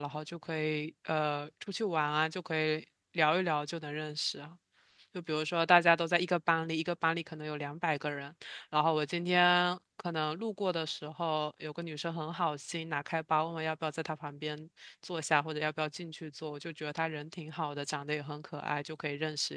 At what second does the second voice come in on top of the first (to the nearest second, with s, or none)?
none